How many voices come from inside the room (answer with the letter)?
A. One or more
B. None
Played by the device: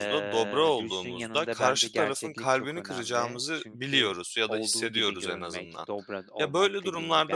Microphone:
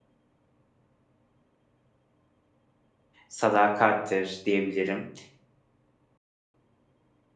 A